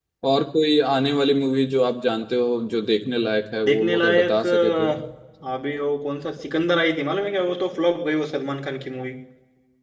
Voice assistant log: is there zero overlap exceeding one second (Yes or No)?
No